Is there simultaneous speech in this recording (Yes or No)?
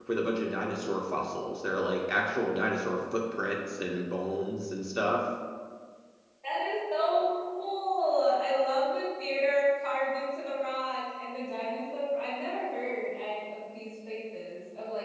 No